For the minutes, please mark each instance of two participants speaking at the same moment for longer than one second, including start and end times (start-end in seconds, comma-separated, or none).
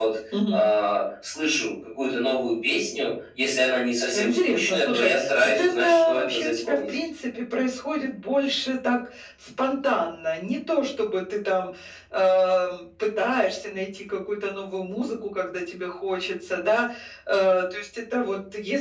4.1-6.8